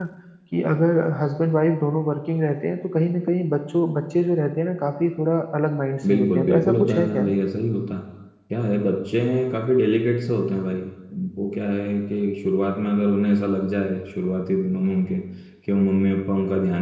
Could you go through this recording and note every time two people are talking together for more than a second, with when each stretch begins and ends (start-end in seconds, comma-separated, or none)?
6.1-7.3